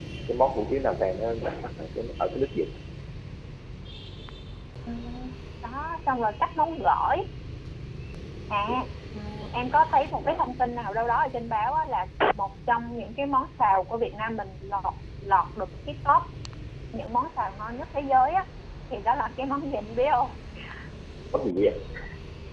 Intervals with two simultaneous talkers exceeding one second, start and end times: none

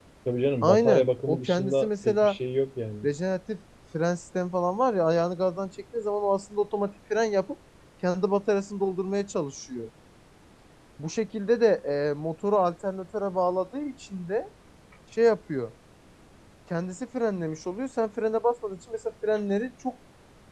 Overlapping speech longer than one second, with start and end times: 0.6-2.4

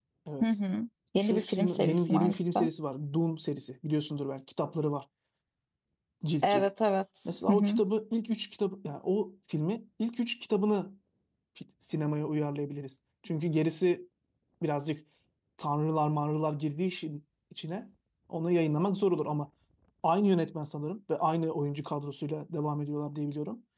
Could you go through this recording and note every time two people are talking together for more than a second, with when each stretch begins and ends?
1.2-2.6

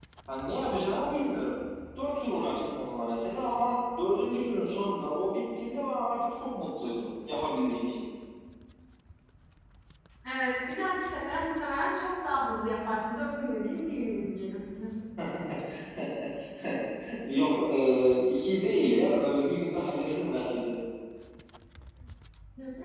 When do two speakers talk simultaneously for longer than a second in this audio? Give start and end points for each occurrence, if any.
none

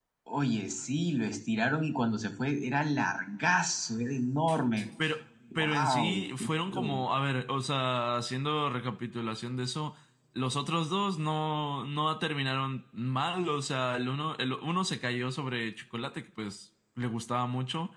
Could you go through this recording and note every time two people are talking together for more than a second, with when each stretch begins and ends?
5.6-7.0

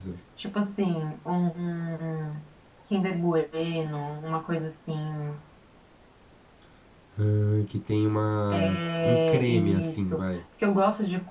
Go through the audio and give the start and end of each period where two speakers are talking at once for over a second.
8.5-10.2

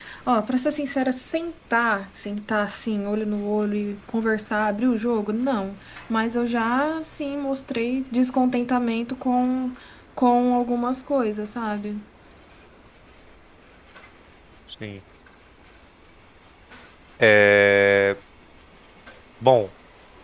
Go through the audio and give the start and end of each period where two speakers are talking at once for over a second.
none

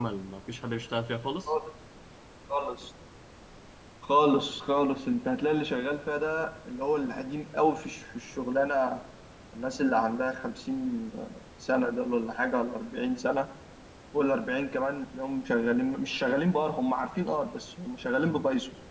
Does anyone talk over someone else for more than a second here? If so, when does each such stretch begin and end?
none

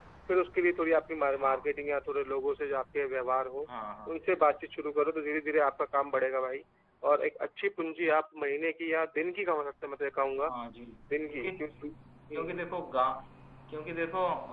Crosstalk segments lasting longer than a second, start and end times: none

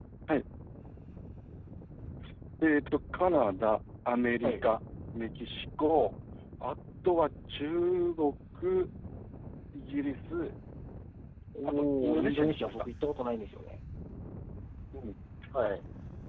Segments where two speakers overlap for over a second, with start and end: 11.6-12.8

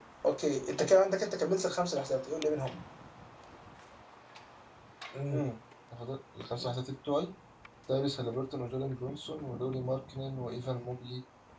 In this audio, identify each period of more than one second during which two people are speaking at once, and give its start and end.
none

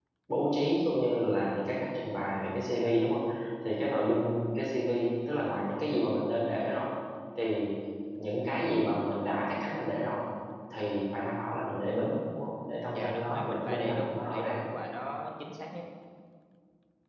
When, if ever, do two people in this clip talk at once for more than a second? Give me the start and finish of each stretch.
12.9-14.6

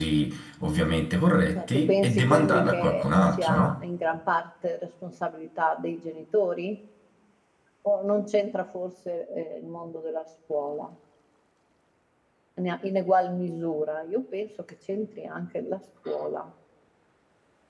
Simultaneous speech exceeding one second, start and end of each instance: 1.6-3.8

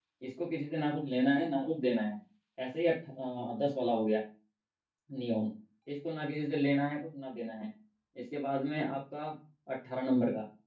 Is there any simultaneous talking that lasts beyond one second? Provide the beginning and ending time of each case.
none

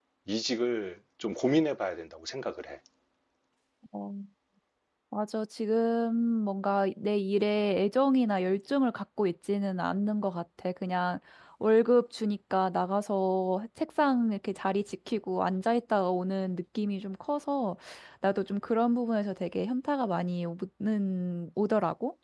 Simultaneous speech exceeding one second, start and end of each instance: none

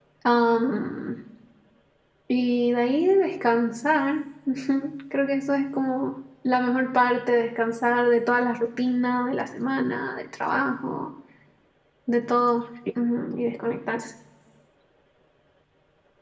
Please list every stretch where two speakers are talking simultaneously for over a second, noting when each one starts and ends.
none

